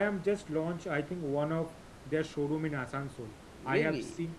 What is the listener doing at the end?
listening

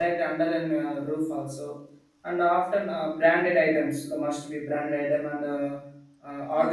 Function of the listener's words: listening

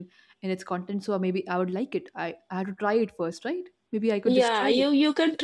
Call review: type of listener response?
taking over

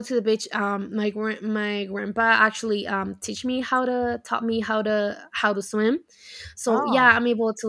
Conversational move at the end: listening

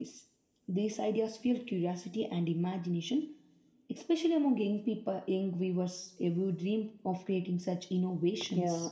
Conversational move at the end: taking over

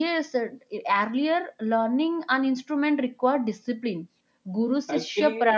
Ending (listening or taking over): taking over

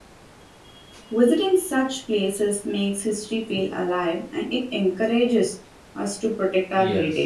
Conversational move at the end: taking over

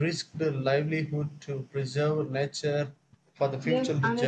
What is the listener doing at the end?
taking over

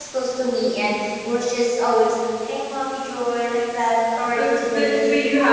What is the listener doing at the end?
taking over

